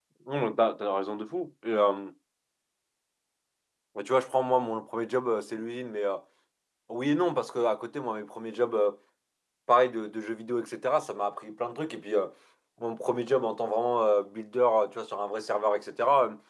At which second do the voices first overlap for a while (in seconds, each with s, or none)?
none